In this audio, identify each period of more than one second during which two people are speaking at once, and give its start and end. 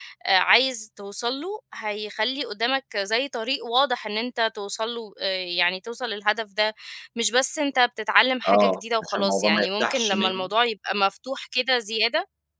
8.5-10.5

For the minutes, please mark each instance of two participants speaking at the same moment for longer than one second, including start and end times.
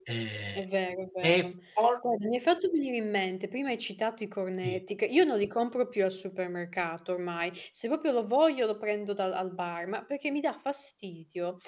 none

